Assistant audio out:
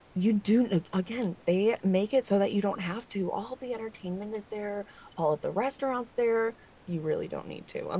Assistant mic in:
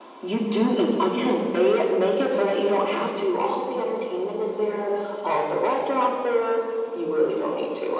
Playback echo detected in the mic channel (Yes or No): Yes